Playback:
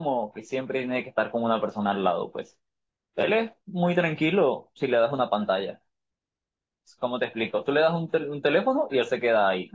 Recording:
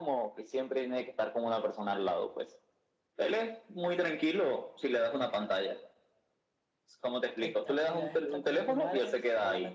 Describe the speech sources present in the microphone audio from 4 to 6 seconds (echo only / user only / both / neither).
echo only